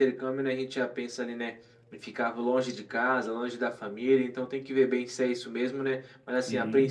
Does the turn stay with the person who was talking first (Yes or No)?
Yes